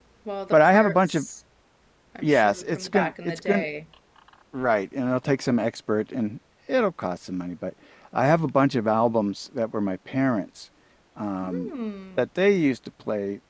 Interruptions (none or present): present